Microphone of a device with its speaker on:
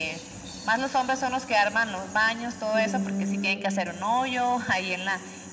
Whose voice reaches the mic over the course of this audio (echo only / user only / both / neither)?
both